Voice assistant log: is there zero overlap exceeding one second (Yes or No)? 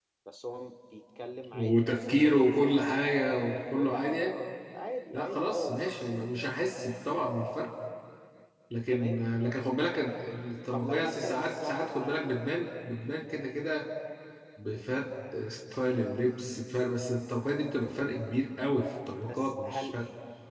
No